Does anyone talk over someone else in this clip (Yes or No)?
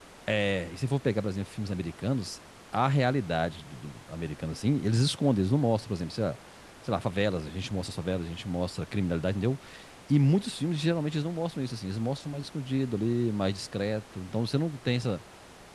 No